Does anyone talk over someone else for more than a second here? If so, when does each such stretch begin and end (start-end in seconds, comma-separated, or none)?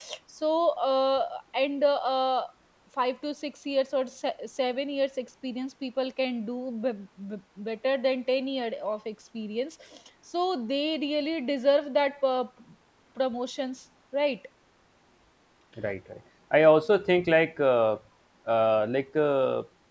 none